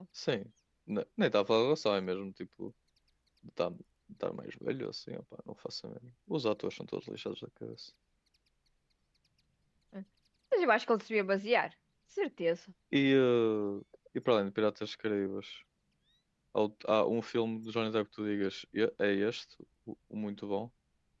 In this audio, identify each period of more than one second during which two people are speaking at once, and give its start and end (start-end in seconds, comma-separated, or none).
none